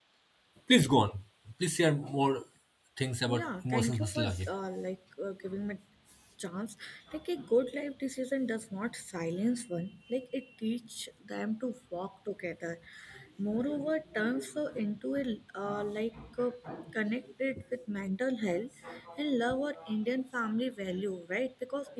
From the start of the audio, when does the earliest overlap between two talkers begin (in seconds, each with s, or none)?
3.3 s